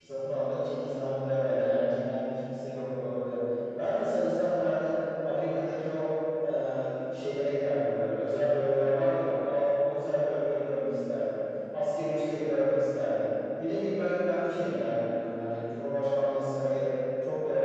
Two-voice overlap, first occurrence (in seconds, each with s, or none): none